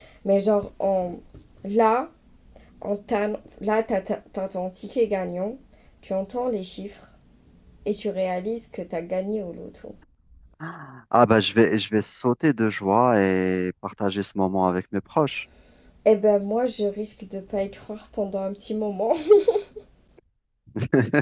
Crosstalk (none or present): none